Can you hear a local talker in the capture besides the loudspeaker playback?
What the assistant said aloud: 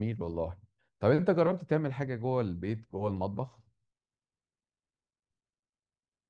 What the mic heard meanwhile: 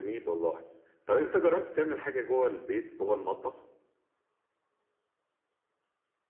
No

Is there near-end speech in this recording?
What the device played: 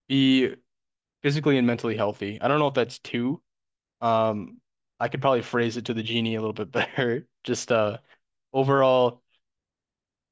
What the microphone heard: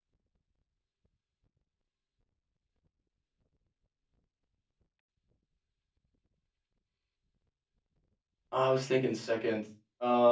Yes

